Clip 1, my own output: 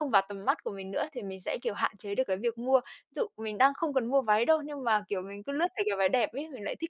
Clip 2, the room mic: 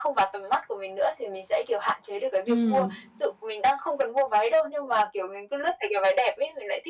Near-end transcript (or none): Ừm.